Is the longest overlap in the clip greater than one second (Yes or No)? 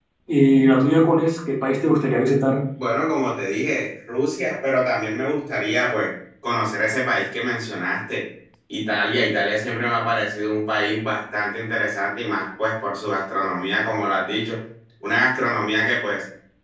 No